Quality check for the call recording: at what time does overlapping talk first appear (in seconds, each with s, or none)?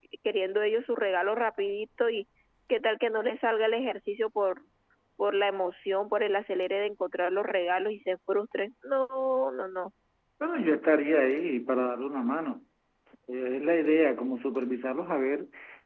none